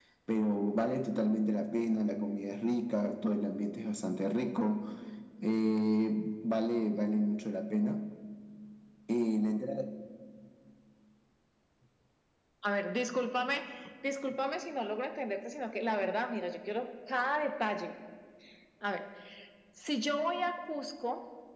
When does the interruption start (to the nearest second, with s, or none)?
none